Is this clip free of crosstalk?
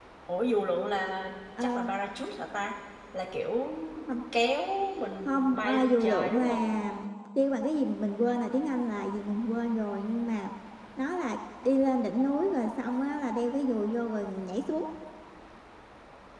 No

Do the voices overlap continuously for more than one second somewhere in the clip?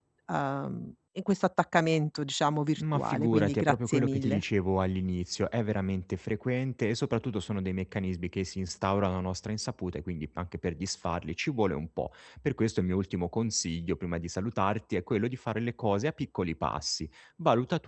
Yes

